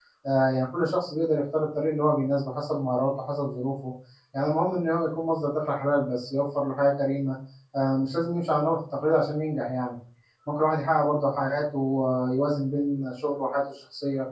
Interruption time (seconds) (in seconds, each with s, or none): none